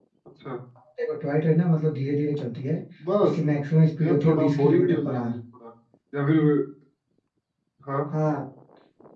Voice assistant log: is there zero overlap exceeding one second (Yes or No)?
No